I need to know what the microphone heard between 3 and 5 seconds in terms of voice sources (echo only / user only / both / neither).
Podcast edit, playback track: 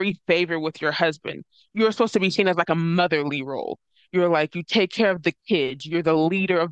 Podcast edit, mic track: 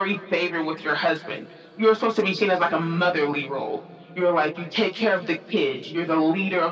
echo only